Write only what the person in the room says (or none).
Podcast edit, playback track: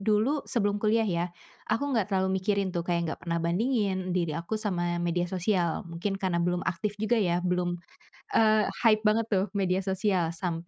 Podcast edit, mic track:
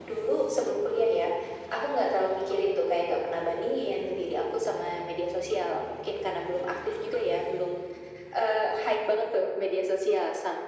none